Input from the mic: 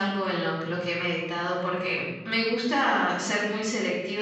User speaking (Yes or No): No